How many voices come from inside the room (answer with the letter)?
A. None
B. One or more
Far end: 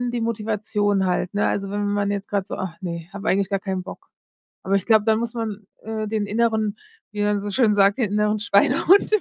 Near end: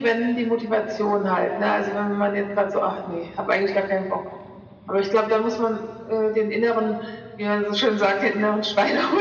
A